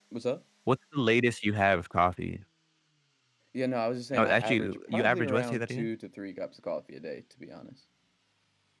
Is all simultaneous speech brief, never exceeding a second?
No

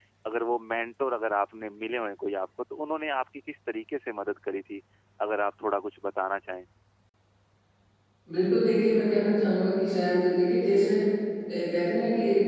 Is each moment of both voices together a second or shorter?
Yes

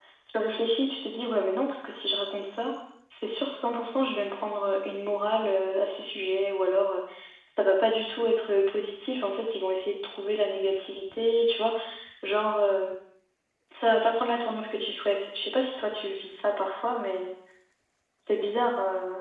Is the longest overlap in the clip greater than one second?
No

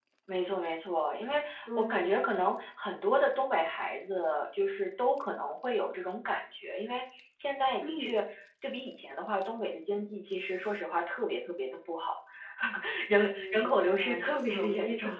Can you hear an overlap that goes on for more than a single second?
Yes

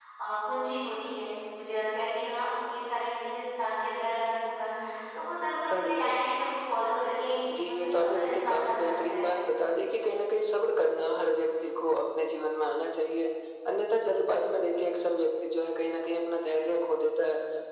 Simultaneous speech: Yes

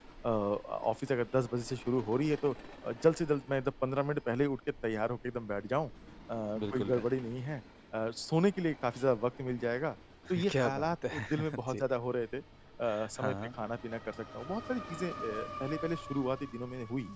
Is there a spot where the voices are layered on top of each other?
Yes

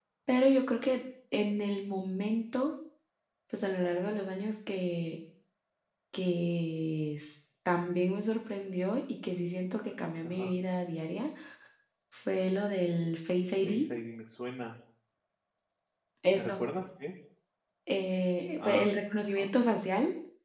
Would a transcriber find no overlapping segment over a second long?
Yes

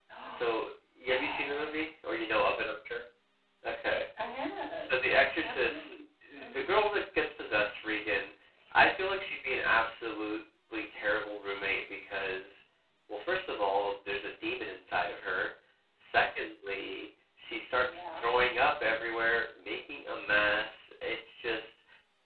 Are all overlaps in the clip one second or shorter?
No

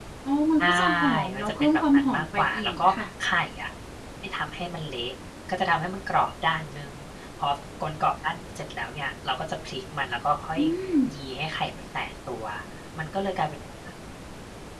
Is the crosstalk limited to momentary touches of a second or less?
No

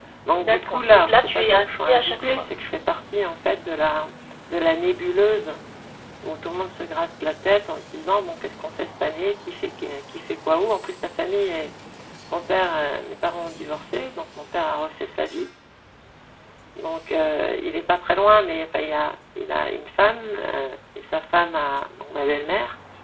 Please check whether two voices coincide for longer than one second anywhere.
Yes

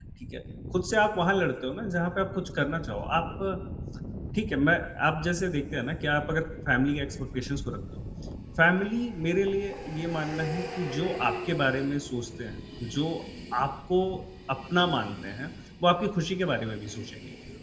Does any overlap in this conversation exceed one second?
No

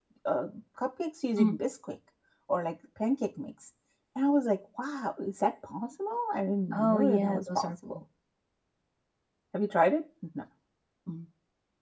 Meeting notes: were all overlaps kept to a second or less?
No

